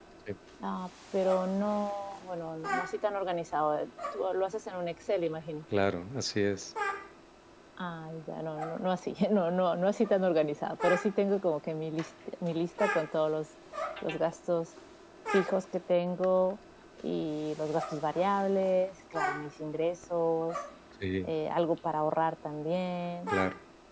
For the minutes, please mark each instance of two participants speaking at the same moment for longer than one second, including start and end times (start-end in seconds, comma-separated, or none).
none